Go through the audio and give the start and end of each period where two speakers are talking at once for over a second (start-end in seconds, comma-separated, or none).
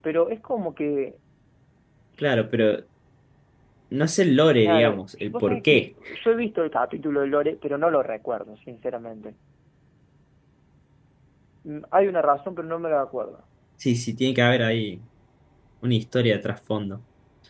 4.6-5.9